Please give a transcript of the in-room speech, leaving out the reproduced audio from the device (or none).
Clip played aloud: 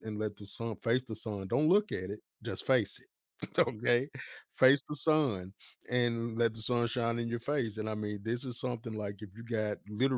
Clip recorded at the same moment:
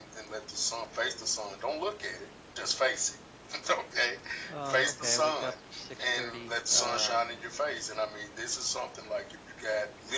Um, okay, I wake up 6:30 um